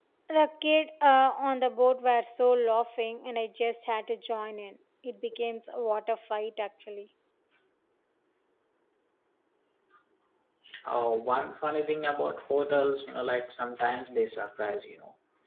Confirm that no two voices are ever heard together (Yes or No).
Yes